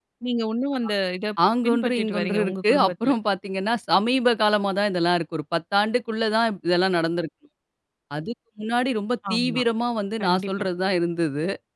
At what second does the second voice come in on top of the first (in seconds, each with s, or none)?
1.6 s